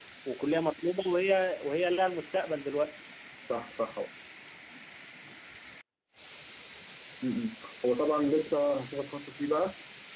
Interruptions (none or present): none